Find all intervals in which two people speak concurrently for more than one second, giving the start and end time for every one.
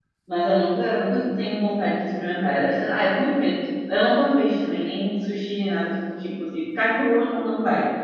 none

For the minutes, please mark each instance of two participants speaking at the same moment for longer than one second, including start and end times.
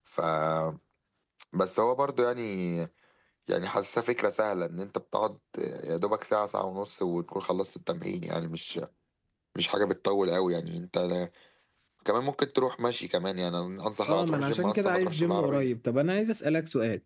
14.1-15.7

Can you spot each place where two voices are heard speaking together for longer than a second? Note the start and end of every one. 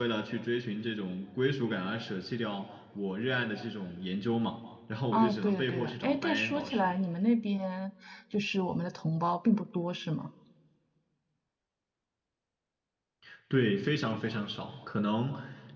5.1-6.9

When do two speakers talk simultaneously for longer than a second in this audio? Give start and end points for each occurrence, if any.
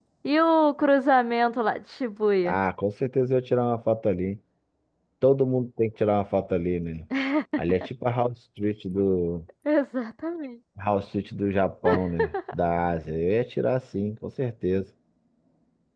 none

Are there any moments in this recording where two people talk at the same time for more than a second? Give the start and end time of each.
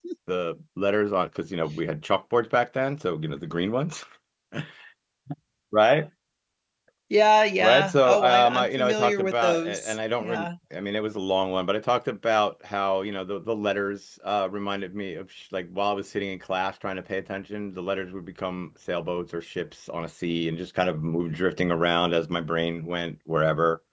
7.6-10.5

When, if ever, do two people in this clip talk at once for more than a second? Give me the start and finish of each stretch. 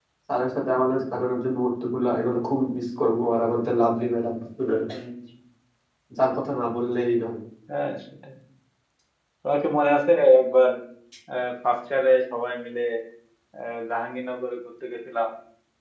none

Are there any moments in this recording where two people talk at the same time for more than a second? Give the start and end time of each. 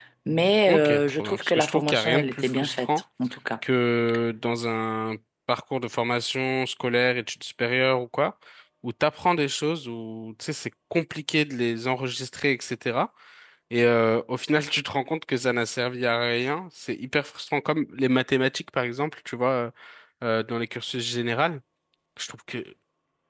0.7-2.9

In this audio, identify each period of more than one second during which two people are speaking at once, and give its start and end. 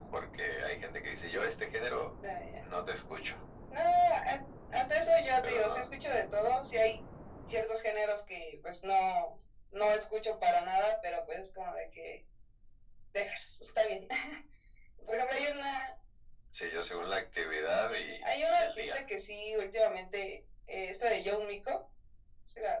17.9-19.1

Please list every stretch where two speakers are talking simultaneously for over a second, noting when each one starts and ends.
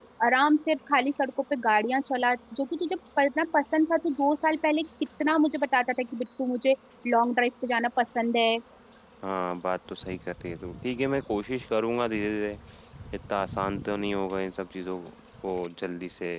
none

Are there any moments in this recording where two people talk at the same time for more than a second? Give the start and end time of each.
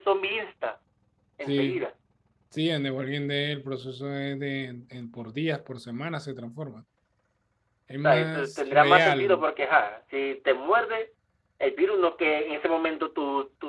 8.0-9.4

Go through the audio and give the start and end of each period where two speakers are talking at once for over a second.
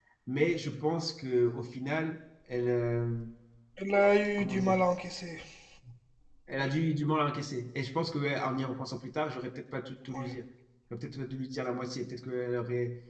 none

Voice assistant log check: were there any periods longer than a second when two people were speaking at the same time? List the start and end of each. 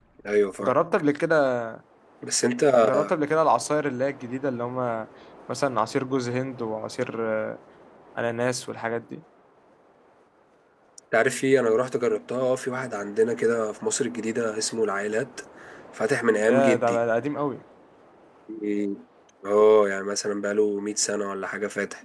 none

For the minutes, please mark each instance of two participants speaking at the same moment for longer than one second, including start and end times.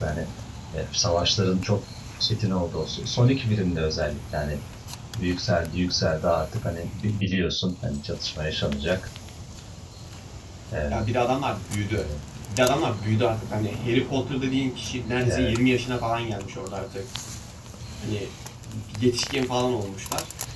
none

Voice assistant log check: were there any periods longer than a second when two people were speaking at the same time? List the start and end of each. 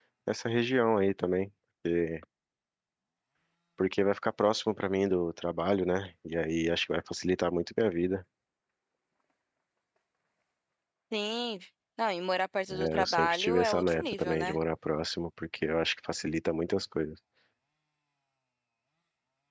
12.7-14.6

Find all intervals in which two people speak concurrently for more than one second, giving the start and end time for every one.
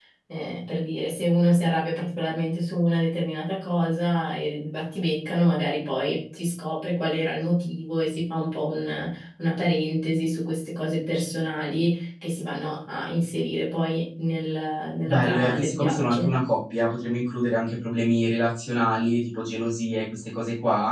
15.1-16.3

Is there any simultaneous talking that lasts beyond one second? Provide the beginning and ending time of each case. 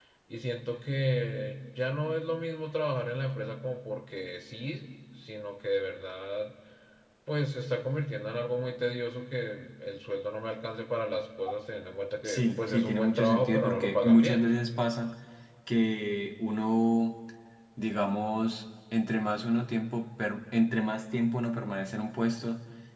12.2-14.4

